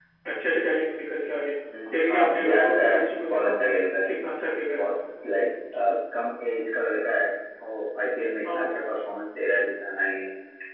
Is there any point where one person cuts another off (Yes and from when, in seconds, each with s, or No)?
Yes, from 2.0 s